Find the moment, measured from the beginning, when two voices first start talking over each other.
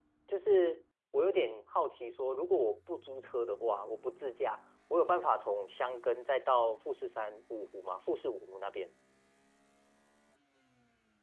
none

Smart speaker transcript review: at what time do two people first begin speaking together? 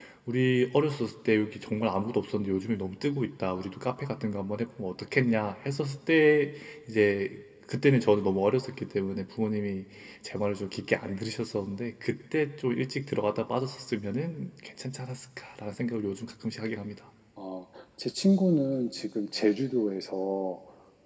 none

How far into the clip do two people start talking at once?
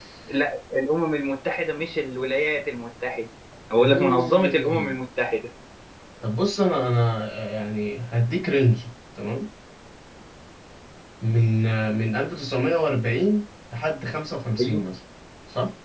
3.8 s

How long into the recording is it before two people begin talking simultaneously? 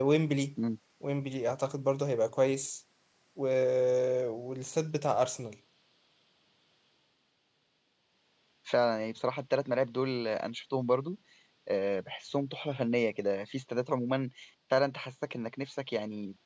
none

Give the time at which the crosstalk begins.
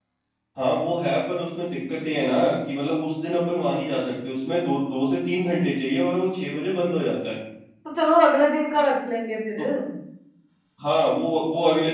none

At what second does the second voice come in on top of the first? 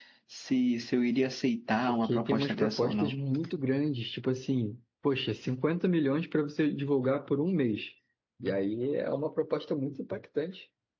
1.9 s

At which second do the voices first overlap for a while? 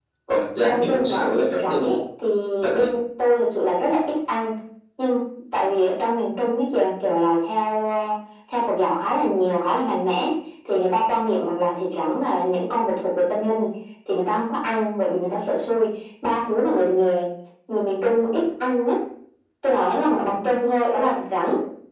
0.7 s

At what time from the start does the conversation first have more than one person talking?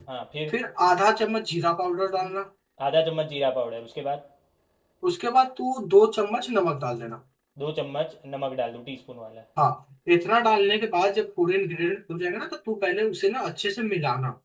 none

